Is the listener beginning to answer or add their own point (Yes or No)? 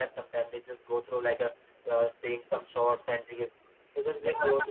Yes